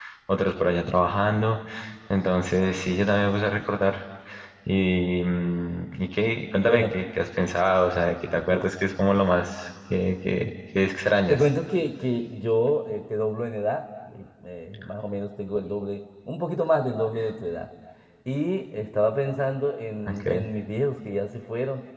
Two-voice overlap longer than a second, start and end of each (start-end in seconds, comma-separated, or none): none